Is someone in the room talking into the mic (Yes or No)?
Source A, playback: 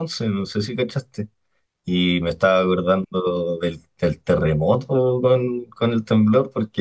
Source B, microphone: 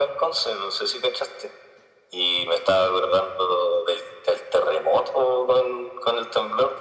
No